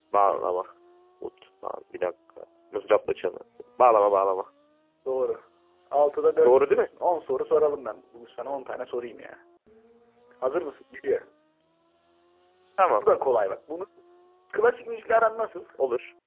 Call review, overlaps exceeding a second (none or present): none